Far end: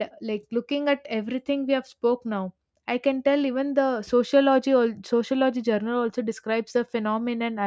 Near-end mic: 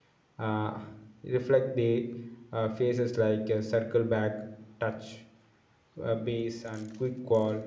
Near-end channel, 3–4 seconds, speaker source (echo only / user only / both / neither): user only